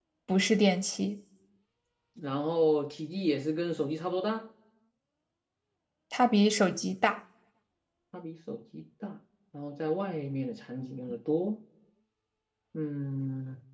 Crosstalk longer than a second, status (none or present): none